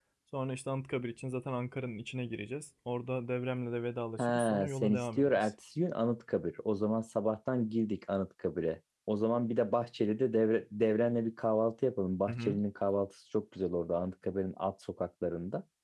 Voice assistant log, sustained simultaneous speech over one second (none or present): present